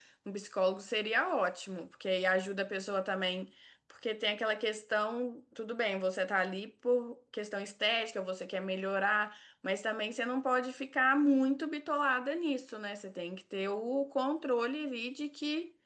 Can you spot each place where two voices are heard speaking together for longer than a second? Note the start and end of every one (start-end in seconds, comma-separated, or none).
none